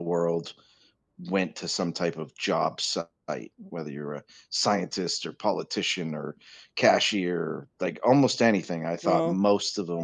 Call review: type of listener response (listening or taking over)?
listening